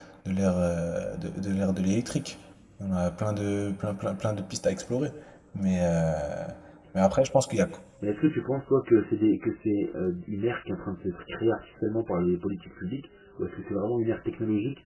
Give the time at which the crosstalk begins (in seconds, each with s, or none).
none